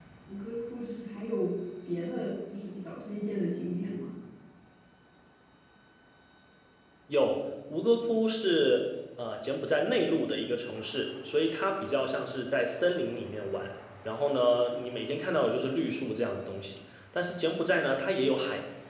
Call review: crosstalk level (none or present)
none